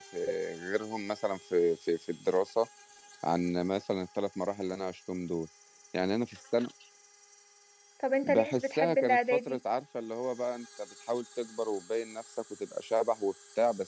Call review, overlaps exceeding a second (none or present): present